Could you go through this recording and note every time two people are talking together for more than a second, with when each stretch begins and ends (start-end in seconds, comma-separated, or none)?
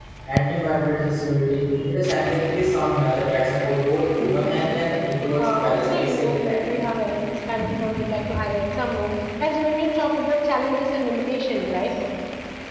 5.4-6.6